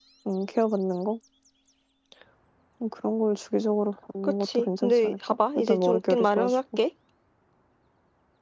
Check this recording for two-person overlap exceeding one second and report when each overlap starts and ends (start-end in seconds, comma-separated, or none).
4.2-6.6